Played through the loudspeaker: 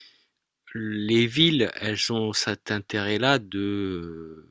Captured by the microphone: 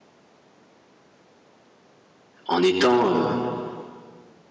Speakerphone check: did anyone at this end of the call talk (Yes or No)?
Yes